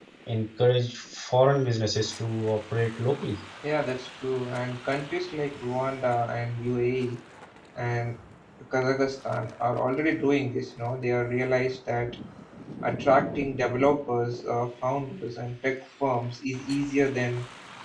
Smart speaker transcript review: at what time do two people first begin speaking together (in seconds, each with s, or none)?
none